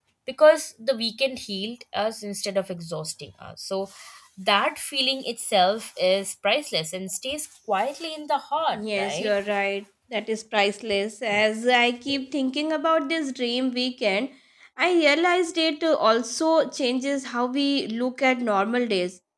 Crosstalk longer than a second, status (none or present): none